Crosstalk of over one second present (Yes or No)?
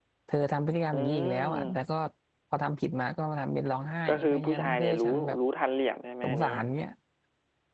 Yes